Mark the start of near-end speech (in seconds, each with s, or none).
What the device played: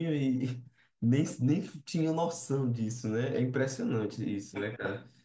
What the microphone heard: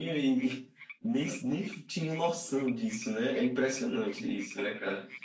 none